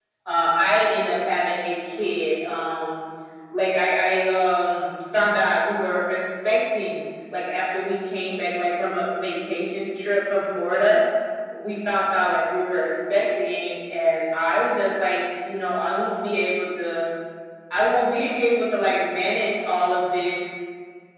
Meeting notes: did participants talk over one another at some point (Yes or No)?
No